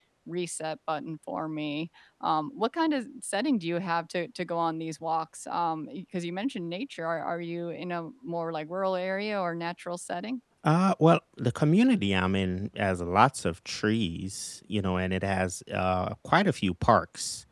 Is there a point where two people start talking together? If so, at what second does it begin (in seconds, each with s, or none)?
none